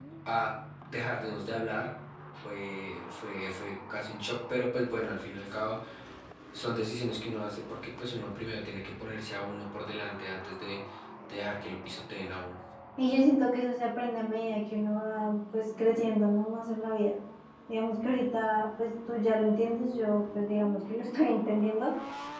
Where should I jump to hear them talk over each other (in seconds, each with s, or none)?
none